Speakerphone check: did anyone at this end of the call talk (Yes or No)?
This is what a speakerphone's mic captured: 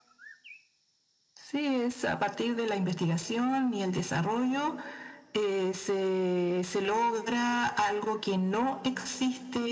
No